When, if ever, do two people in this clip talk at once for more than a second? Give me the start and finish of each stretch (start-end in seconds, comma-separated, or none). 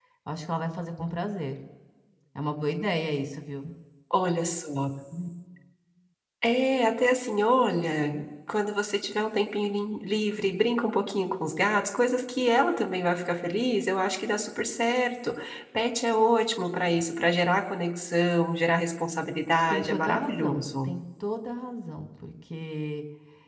19.7-20.9